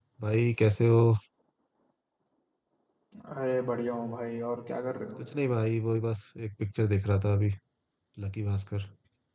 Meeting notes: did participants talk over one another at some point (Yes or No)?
No